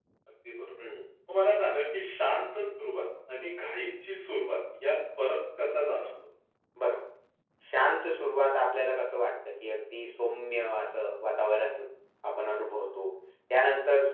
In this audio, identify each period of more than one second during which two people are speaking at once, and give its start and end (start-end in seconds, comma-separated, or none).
none